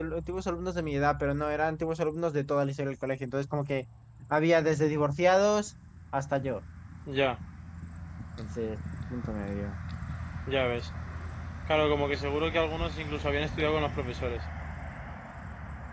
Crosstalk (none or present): none